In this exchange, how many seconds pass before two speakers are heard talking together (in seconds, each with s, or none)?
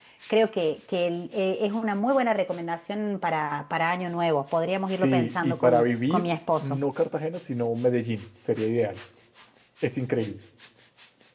5.0 s